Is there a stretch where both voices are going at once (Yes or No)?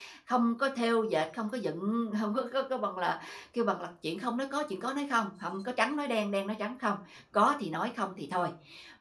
No